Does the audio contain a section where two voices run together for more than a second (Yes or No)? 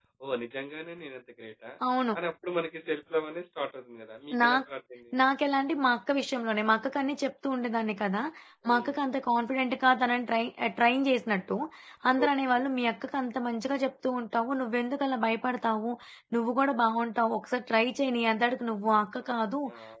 No